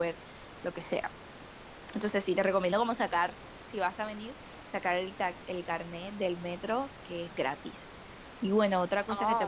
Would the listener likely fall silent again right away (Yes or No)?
Yes